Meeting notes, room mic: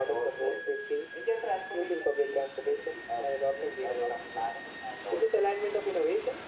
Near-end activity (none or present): none